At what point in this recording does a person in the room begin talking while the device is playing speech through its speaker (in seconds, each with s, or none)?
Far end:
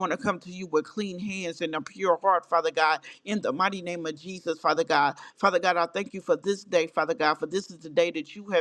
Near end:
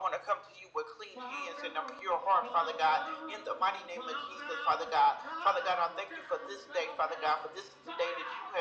1.1 s